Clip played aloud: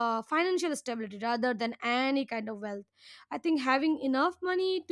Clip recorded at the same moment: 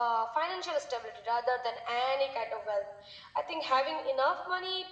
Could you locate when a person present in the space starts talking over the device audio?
none

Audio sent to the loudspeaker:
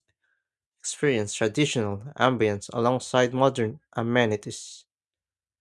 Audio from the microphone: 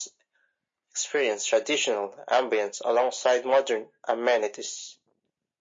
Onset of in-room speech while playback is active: none

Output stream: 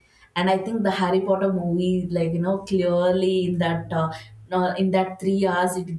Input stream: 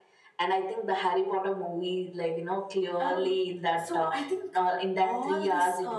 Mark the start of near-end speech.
3.0 s

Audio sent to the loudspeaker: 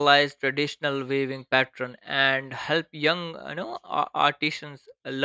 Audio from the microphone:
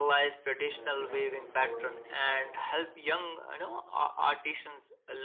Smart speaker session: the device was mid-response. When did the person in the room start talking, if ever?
0.7 s

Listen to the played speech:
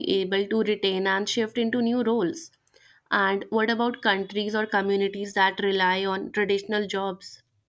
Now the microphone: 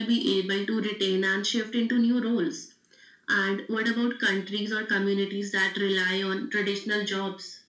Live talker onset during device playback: none

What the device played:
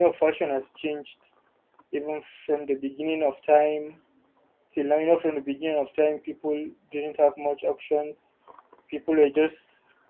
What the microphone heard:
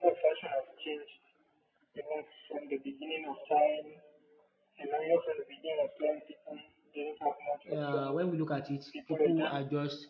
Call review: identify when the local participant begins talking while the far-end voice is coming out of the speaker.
7.8 s

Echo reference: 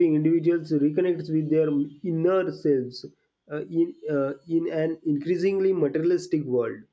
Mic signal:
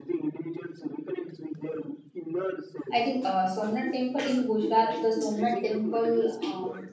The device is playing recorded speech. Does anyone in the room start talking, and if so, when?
2.9 s

